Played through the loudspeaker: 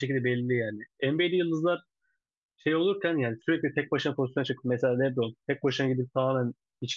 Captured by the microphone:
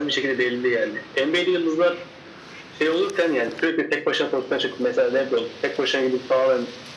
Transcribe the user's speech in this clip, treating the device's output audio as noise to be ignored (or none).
none